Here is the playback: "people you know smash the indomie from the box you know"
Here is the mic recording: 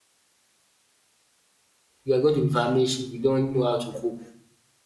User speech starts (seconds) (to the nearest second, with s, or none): 2 s